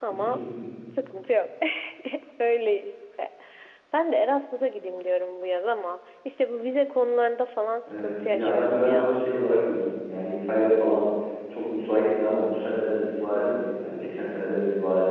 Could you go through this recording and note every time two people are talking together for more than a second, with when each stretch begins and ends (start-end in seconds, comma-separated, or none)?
8.0-9.2